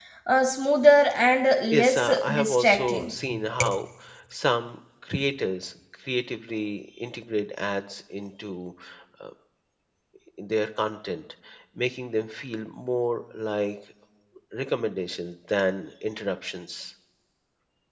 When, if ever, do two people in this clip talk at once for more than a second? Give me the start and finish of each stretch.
1.7-3.1

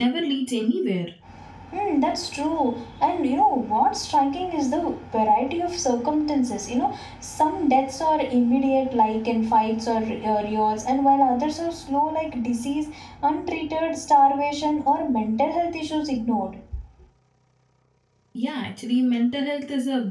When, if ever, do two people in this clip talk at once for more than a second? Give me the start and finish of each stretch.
none

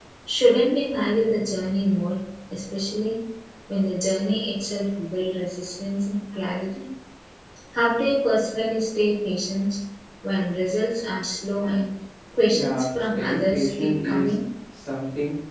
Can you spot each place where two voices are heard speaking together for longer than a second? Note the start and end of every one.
12.5-14.3

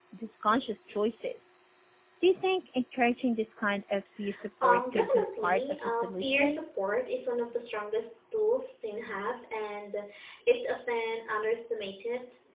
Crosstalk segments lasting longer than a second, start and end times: 4.6-6.6

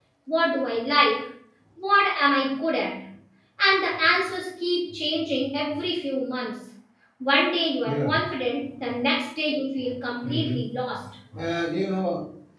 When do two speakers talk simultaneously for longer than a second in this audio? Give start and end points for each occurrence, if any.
none

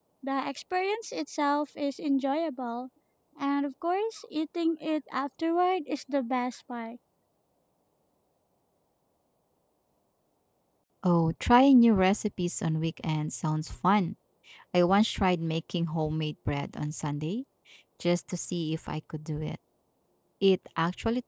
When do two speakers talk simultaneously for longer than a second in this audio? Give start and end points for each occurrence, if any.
none

